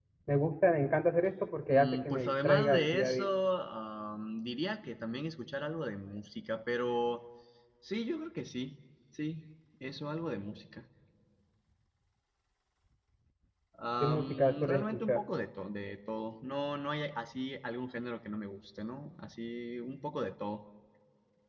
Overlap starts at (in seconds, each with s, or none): 1.7 s